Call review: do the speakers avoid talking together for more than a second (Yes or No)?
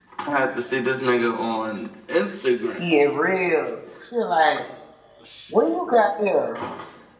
Yes